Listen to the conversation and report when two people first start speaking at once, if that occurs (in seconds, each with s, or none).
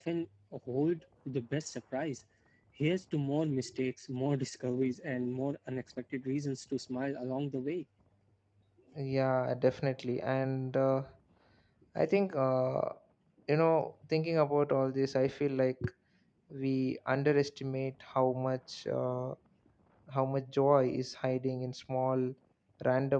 none